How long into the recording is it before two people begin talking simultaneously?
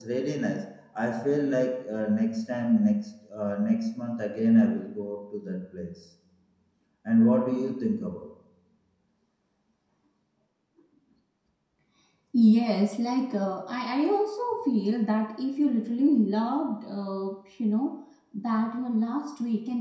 none

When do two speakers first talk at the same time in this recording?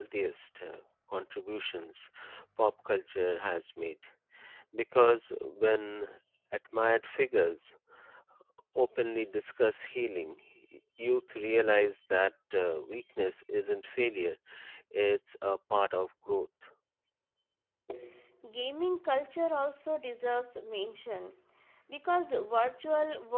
none

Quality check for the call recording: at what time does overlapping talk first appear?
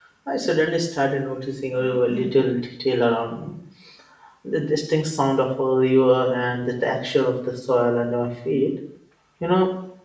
none

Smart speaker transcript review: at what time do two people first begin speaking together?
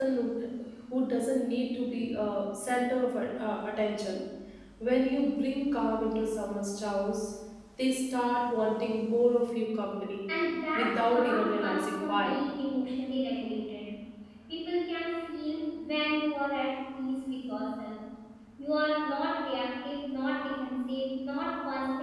10.8 s

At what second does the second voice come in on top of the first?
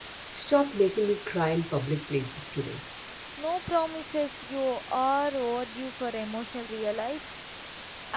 none

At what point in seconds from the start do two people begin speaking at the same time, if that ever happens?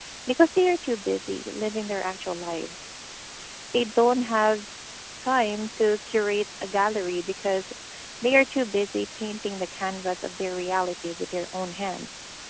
none

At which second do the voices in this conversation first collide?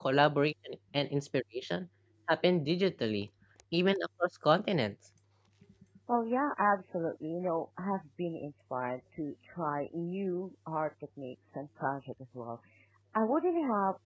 none

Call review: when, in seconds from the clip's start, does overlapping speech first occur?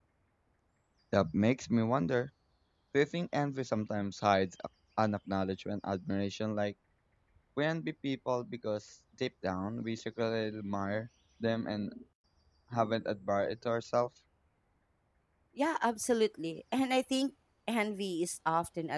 none

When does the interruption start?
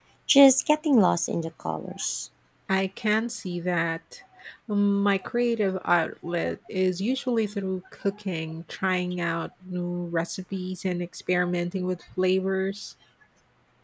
none

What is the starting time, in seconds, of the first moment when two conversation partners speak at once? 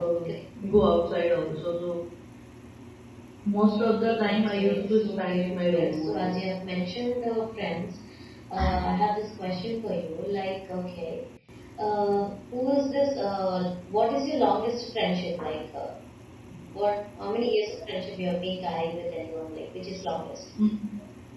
4.2 s

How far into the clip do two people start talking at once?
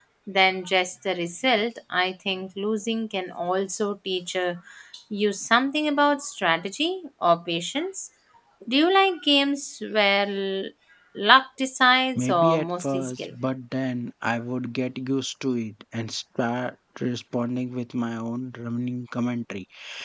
12.2 s

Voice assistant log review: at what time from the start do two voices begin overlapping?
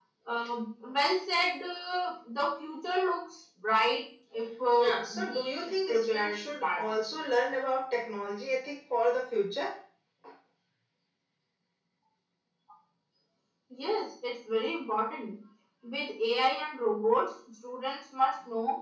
4.8 s

